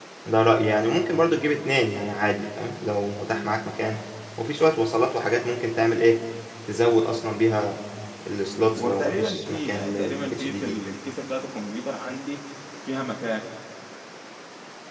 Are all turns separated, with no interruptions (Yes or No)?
No